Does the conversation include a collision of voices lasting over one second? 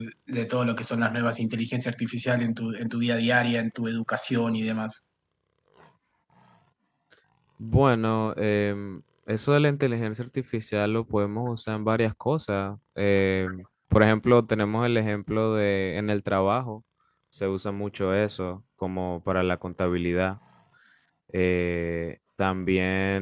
No

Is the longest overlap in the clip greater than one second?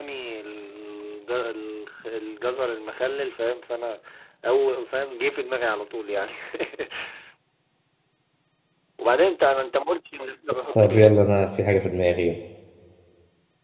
No

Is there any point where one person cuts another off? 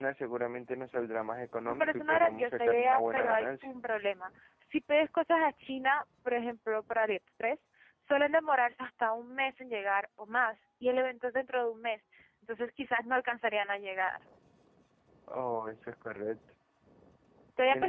Yes, from 1.6 s

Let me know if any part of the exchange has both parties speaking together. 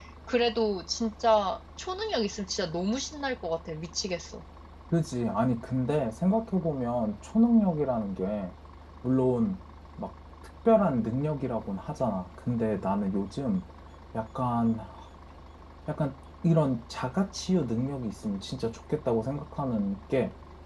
No

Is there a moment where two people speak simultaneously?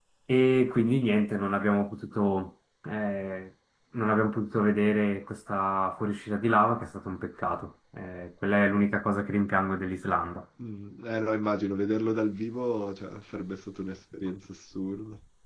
No

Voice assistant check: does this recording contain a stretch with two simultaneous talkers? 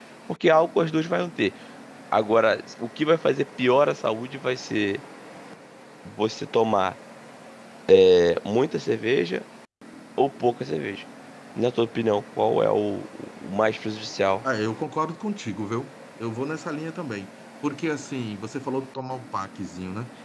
No

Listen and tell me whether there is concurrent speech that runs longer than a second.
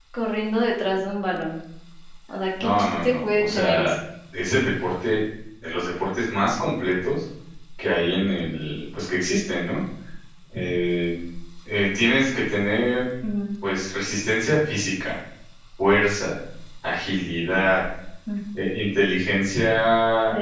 Yes, from 2.6 s

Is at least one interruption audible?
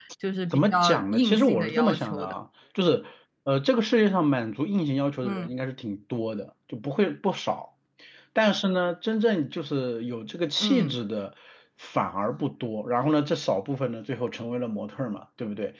Yes, from 0.5 s

